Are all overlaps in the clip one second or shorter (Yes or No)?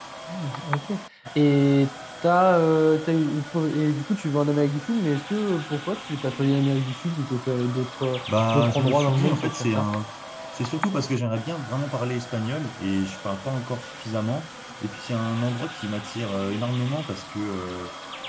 No